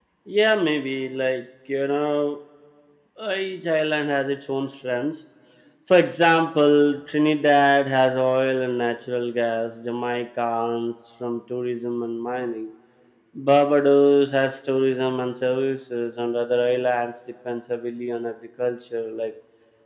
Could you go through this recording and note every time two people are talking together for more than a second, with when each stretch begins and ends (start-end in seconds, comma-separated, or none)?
none